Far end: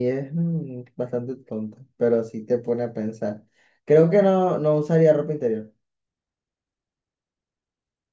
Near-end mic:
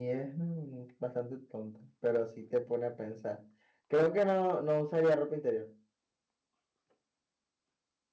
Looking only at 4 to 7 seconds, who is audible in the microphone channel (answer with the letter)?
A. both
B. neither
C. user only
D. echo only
D